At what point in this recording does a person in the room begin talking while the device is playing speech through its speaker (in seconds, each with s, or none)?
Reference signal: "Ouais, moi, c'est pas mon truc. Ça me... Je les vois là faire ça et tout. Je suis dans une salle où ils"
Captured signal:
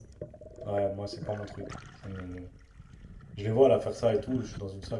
none